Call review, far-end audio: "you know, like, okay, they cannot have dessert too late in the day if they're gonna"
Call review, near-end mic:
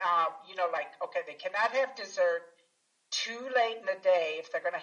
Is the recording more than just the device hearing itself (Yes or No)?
No